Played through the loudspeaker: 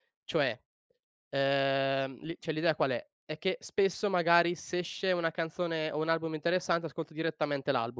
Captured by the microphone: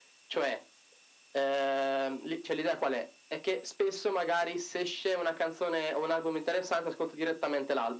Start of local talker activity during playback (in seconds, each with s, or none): none